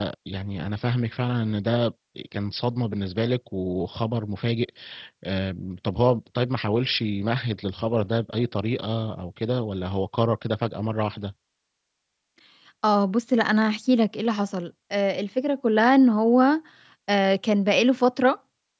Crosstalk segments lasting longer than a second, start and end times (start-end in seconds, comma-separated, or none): none